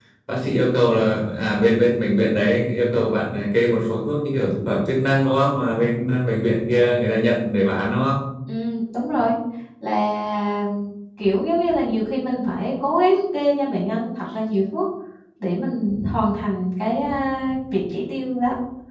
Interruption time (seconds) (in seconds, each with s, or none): none